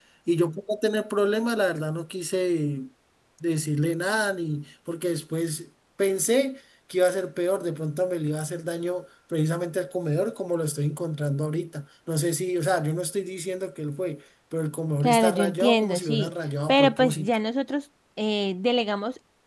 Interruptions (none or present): present